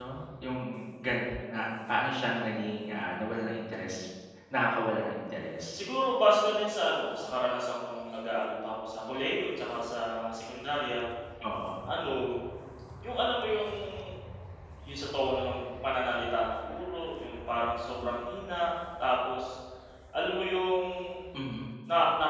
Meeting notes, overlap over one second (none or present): none